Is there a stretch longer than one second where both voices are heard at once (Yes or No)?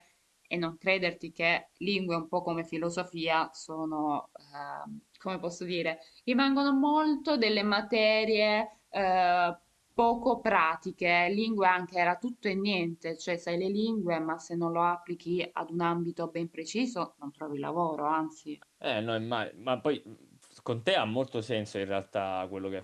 No